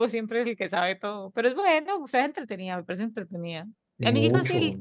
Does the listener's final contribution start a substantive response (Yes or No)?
No